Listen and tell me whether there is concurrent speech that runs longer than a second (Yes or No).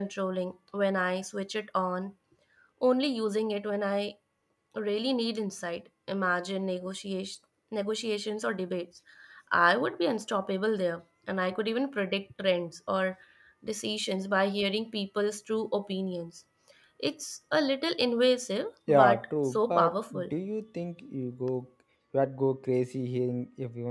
Yes